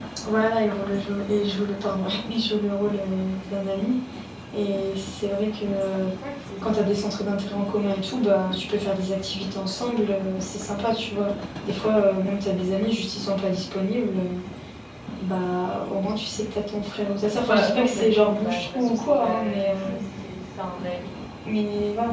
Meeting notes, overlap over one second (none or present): present